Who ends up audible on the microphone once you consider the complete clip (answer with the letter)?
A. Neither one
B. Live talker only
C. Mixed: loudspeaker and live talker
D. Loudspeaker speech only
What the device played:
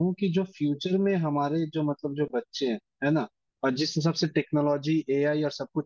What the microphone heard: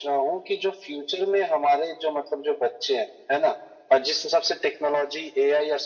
D